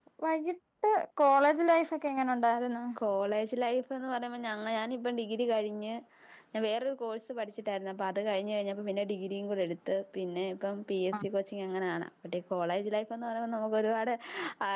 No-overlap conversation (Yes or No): Yes